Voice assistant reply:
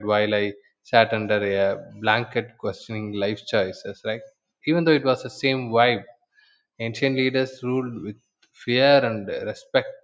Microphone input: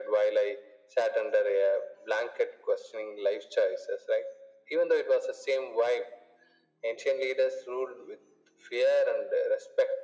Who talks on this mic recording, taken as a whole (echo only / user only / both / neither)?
echo only